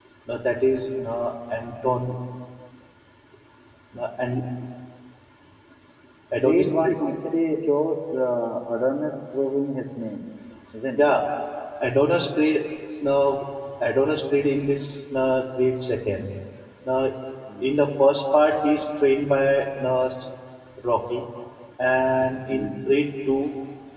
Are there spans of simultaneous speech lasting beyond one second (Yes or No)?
No